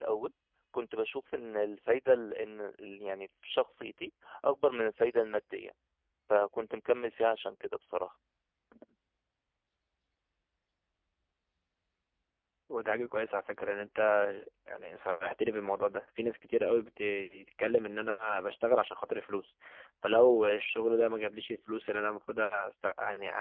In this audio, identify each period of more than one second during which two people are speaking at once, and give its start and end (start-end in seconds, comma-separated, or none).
none